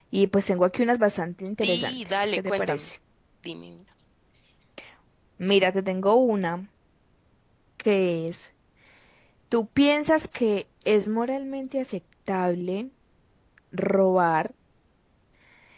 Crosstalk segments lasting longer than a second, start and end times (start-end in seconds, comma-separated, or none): 1.6-2.9